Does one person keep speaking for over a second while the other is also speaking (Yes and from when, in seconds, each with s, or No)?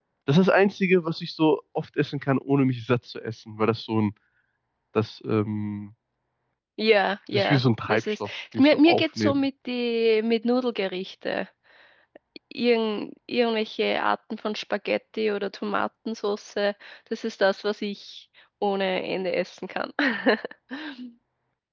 Yes, from 7.3 s